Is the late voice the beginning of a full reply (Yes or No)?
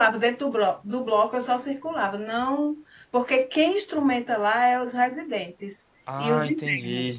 Yes